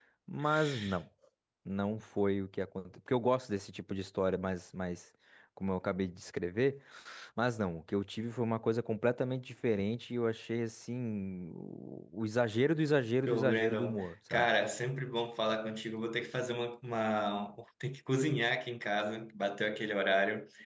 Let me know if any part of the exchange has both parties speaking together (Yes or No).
Yes